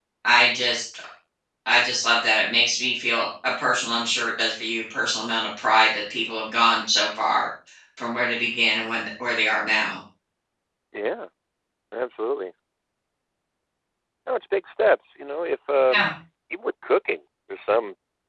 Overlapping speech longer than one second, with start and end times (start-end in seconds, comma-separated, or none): none